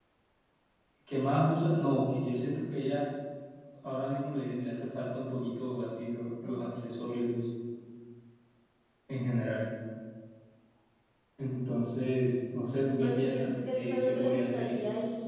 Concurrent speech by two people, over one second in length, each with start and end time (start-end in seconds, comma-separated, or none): 13.0-14.8